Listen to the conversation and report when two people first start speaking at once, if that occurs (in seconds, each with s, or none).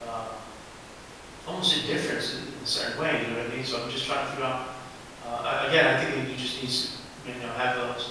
none